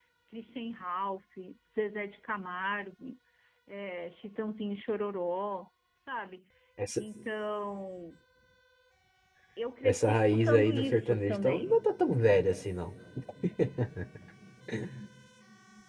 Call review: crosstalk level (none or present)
present